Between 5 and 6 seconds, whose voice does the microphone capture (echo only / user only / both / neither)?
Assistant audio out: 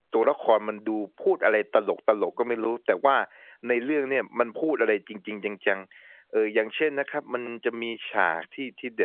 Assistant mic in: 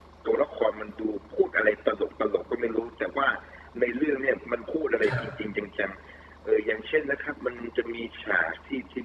both